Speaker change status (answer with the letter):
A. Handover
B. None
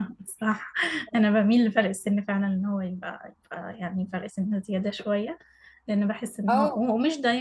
B